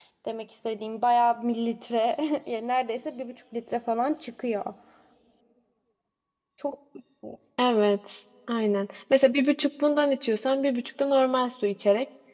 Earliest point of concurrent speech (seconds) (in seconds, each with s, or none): none